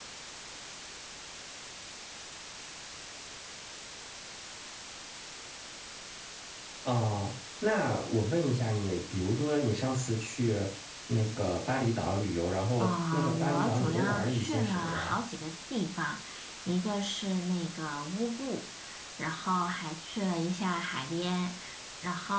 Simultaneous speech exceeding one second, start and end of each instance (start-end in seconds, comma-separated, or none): 12.8-15.2